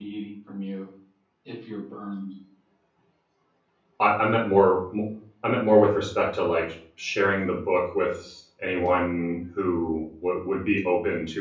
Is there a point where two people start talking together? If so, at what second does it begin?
none

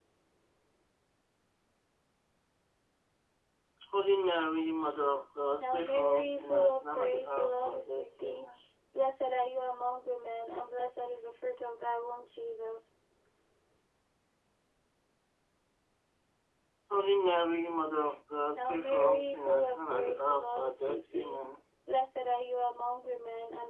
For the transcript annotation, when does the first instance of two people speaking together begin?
6 s

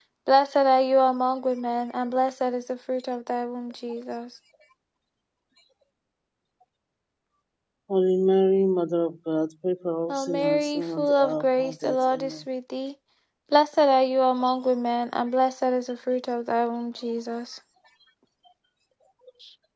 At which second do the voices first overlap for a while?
10 s

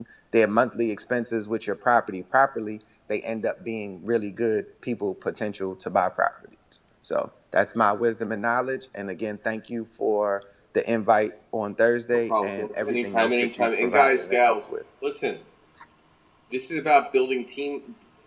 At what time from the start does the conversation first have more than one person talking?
12 s

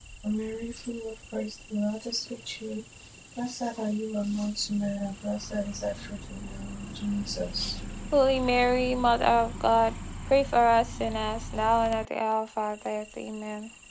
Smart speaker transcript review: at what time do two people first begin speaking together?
none

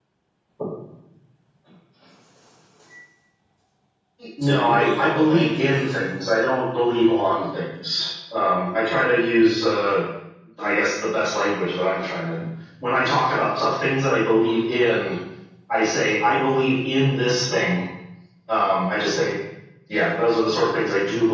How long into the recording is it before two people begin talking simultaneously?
4 s

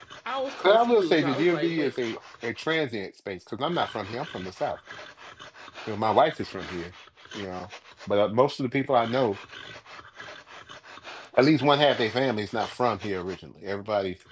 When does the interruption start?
1 s

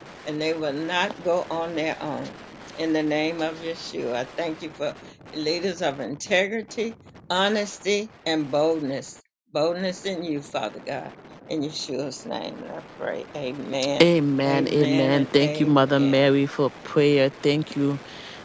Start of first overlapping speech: 14 s

